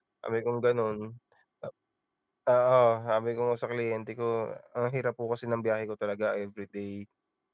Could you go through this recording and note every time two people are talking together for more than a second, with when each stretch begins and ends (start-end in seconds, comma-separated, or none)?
none